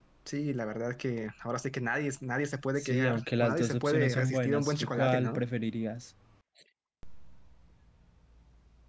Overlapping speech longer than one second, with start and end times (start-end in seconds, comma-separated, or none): 2.8-5.4